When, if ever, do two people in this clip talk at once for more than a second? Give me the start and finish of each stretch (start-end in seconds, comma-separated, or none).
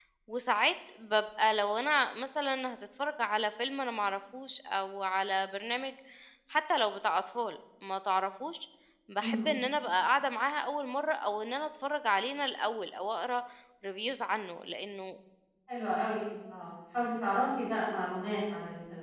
none